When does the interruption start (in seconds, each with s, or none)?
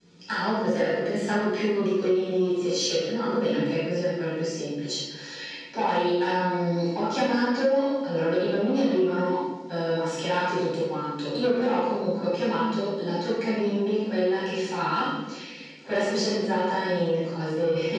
none